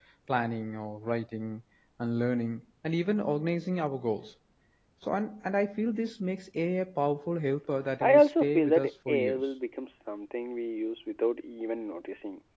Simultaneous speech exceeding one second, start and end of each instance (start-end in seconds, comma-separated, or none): 8.0-9.4